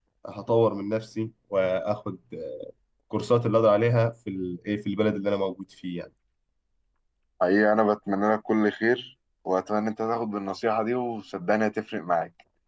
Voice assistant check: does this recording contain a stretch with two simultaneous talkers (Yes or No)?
No